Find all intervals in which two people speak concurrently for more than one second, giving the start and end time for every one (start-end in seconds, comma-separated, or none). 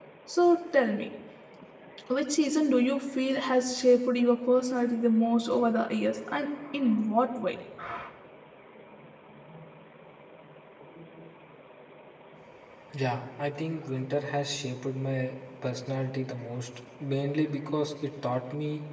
none